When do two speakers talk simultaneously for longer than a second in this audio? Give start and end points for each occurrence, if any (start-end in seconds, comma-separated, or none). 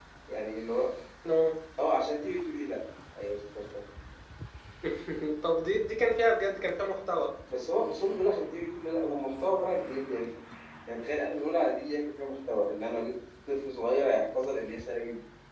none